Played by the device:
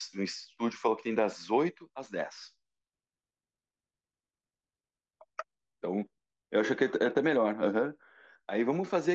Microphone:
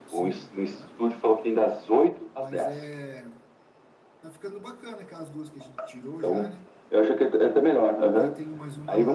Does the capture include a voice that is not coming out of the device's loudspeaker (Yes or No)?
Yes